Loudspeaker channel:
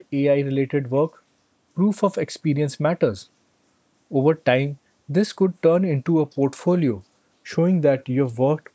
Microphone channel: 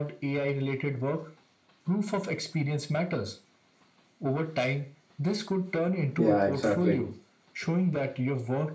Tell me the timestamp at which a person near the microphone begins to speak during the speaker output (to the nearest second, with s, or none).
6 s